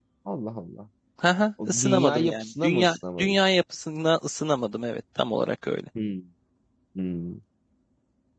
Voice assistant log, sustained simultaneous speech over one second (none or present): present